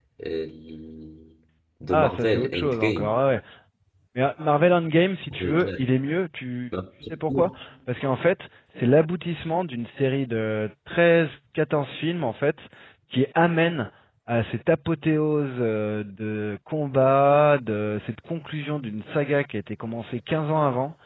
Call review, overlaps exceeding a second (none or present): present